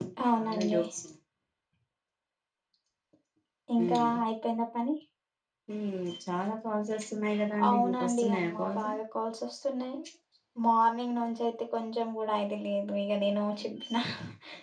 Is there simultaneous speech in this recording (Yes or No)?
Yes